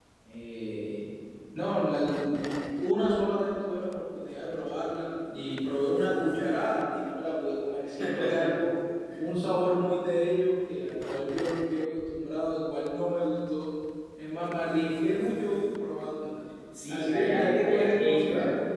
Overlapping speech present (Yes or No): Yes